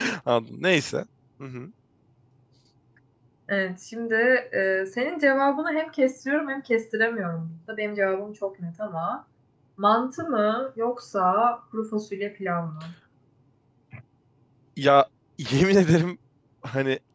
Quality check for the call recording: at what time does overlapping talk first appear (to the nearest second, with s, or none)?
none